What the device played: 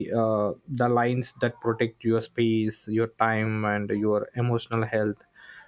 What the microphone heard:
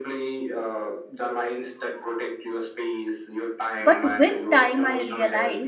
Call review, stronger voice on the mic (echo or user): user